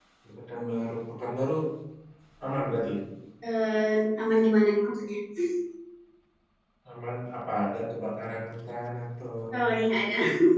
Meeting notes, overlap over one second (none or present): none